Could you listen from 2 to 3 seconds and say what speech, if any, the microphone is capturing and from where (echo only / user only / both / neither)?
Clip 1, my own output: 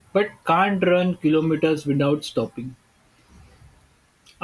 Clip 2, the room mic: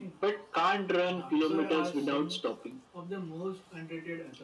both